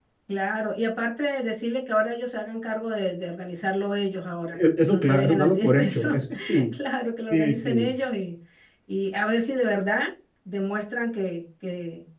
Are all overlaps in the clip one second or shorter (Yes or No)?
No